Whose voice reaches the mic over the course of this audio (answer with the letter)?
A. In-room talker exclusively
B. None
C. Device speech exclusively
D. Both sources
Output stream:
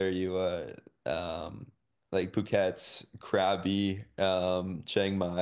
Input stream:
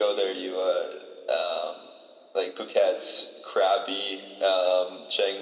C